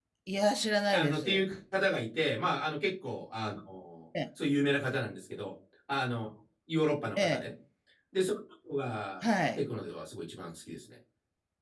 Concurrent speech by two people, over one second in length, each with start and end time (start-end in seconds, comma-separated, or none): none